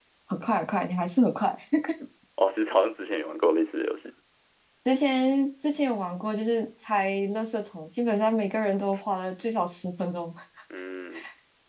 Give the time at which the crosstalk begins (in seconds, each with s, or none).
none